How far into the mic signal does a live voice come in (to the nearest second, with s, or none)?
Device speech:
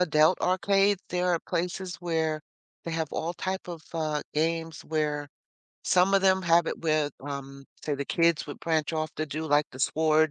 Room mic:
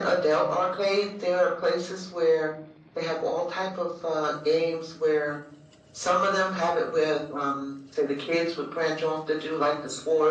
none